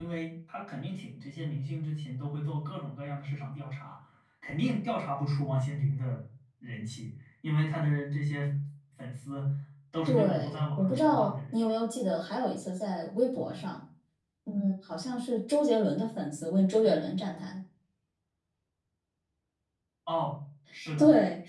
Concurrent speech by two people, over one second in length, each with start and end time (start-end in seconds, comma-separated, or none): 10.0-11.6